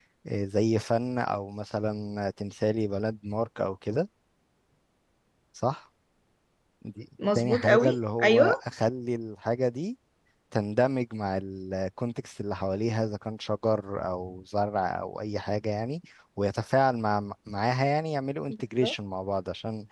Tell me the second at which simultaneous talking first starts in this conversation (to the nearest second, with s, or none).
7 s